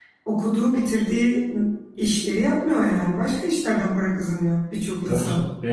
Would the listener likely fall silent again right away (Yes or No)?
No